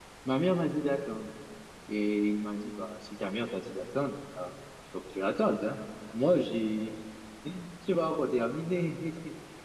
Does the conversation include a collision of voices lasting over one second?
No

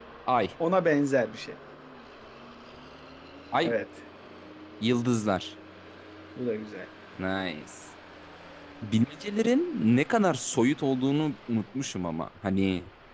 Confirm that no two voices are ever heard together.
Yes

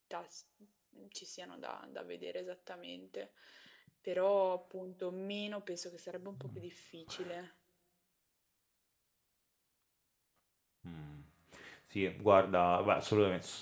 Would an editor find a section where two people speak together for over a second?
No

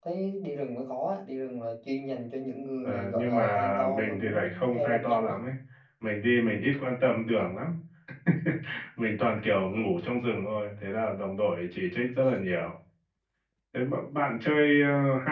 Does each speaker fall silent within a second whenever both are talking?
No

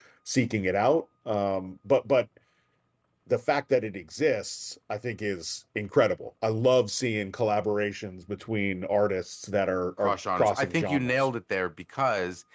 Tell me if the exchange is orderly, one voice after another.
No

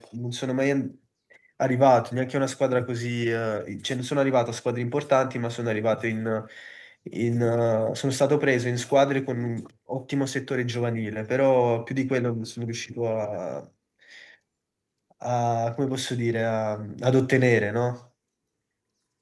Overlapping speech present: No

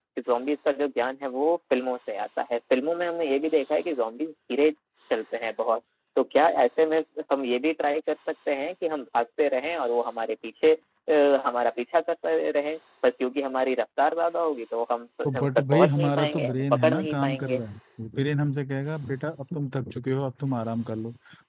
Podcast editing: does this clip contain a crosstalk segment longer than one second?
Yes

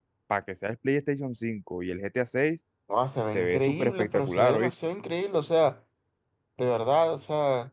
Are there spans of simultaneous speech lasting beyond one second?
Yes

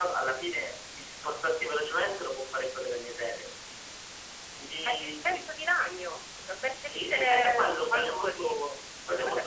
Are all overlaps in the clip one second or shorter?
No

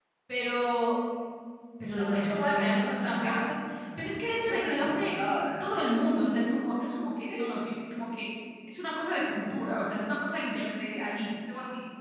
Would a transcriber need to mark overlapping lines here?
Yes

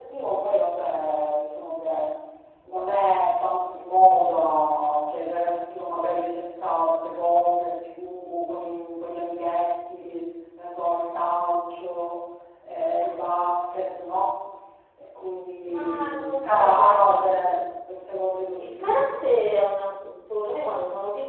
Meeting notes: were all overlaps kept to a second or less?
No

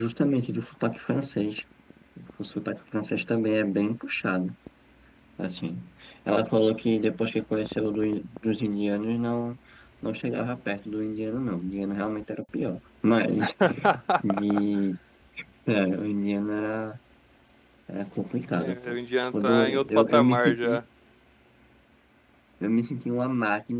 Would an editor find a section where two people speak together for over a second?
Yes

